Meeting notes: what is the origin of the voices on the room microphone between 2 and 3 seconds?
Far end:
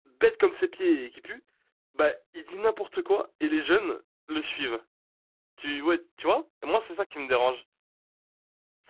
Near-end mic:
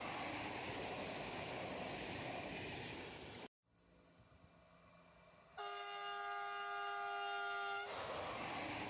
neither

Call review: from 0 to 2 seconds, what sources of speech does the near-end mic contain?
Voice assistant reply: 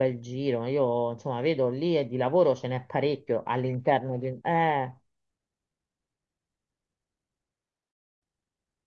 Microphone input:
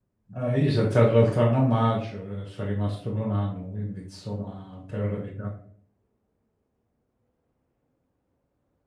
user only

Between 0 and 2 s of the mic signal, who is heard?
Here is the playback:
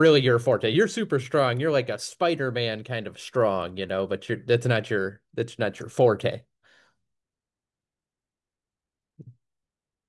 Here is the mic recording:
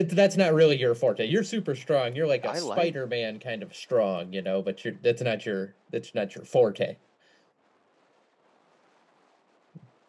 echo only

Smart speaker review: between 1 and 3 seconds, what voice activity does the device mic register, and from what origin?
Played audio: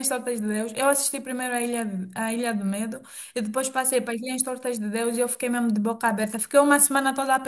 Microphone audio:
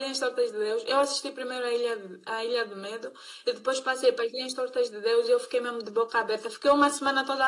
echo only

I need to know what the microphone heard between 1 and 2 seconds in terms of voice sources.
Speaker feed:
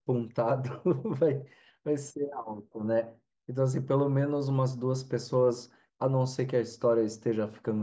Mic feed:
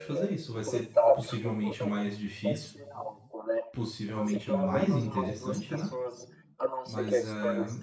both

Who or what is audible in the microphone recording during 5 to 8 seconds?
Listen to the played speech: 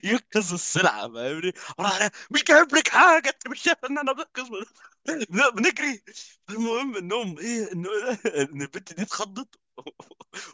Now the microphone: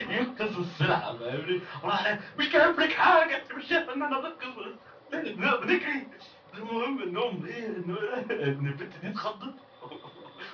echo only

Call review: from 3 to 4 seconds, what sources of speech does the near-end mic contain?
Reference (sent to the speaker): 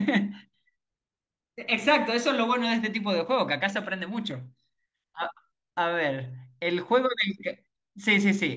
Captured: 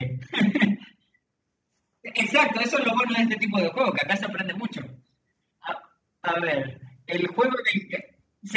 echo only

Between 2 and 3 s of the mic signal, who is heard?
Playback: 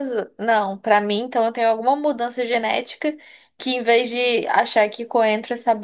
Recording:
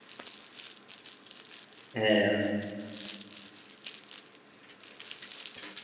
user only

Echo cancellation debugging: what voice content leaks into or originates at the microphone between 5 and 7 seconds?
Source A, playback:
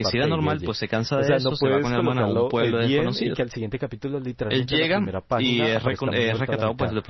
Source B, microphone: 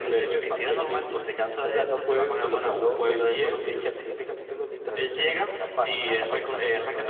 echo only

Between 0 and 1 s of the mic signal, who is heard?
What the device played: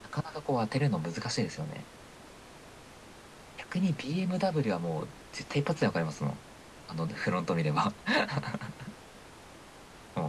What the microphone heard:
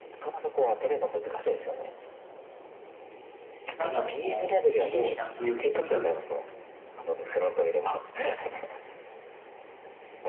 echo only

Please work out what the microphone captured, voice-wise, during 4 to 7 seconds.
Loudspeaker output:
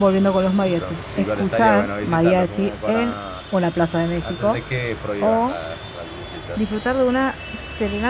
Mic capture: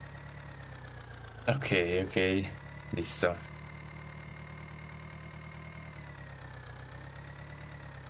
neither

